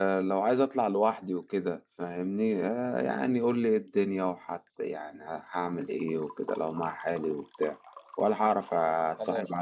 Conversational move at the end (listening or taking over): listening